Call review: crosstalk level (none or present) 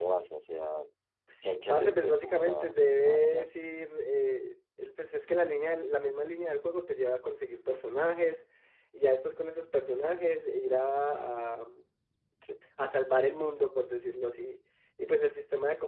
present